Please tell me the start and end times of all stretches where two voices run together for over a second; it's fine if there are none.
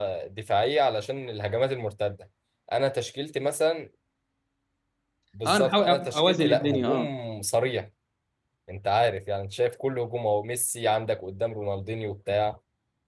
5.5-7.1

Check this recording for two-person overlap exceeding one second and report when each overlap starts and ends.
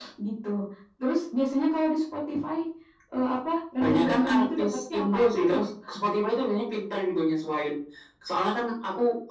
3.8-5.6

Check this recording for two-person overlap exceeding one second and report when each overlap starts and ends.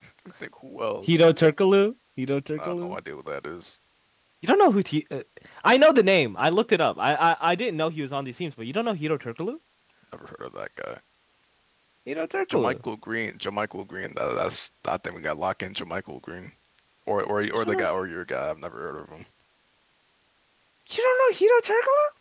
none

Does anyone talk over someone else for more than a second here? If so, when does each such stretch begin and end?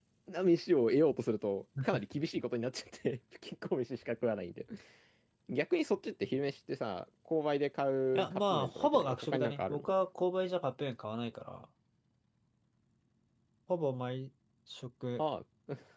8.2-9.9

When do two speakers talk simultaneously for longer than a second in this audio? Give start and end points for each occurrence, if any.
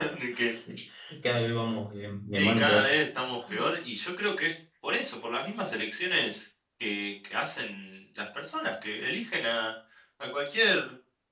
none

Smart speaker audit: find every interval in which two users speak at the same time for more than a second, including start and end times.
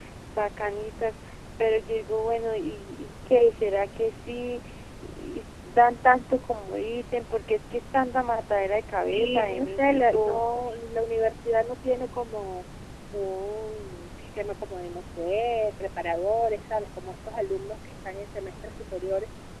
9.1-10.6

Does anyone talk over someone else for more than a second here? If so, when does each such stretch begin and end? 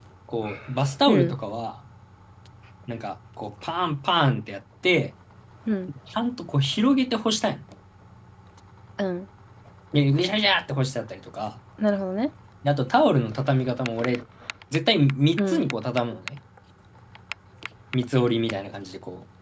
none

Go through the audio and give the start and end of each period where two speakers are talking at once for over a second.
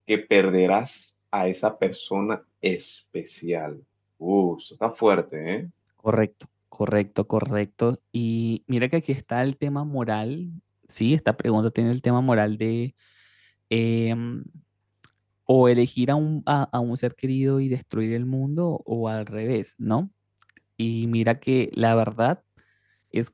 none

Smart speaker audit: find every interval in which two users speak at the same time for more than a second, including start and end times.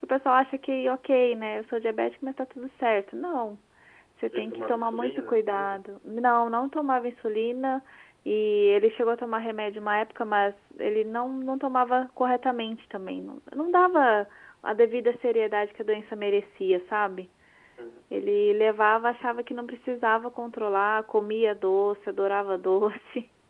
4.3-5.8

